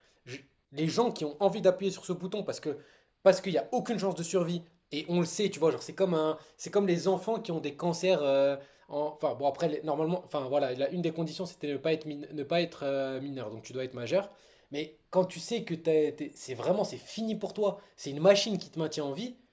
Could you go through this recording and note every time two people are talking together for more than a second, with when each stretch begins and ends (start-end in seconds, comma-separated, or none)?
none